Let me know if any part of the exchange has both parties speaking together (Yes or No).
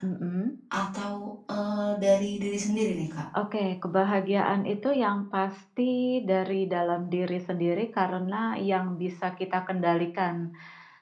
No